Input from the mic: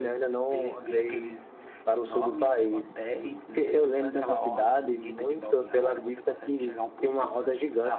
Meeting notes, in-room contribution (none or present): none